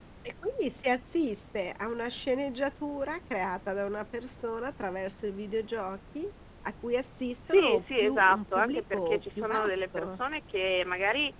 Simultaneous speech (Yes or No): Yes